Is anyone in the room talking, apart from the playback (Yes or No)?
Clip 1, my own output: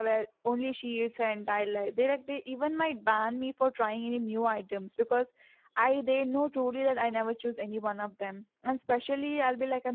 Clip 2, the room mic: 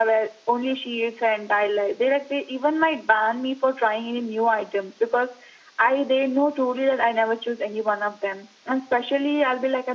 No